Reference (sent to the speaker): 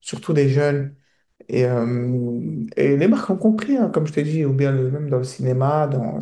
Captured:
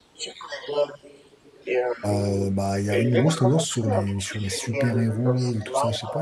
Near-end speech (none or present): present